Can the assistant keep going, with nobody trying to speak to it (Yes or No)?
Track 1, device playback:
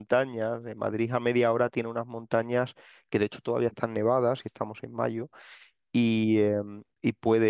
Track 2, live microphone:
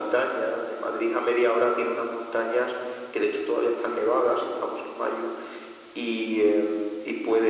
Yes